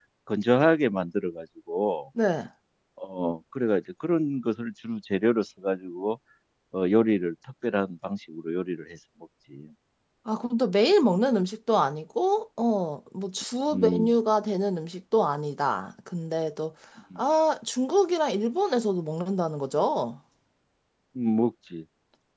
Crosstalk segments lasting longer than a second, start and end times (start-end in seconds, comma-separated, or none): none